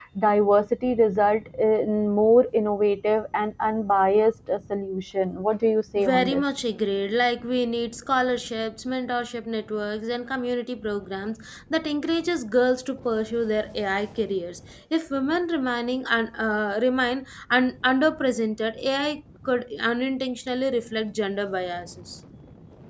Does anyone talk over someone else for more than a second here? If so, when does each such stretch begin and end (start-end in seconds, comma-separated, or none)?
none